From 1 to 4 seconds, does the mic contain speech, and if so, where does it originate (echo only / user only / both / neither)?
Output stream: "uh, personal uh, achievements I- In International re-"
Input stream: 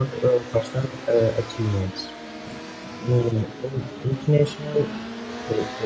echo only